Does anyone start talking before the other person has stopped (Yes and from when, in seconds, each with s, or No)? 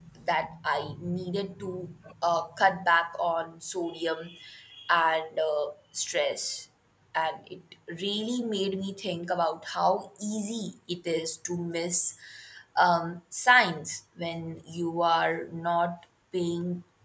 No